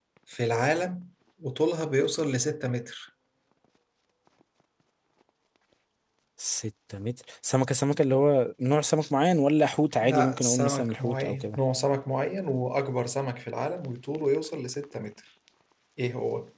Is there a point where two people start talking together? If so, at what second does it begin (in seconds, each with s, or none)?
10.0 s